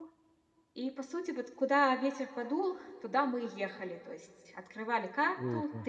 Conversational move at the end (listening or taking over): listening